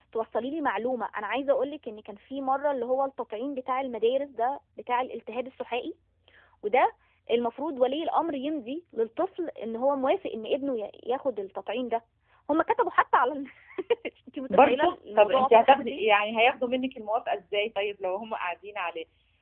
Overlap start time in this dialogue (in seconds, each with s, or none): 14.5 s